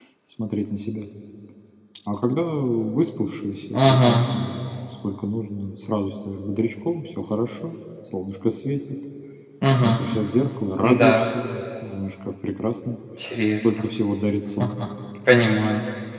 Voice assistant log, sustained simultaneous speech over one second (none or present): none